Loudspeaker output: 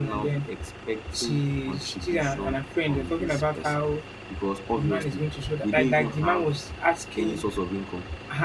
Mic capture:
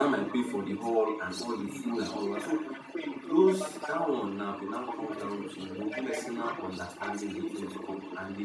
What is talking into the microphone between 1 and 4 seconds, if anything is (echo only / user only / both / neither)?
both